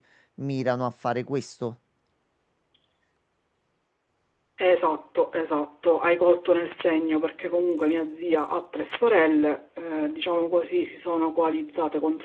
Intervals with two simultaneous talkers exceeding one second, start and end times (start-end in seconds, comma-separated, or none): none